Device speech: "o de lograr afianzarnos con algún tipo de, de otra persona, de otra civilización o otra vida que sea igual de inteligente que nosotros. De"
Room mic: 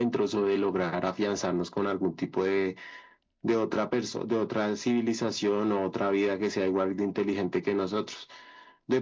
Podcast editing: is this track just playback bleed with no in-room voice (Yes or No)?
Yes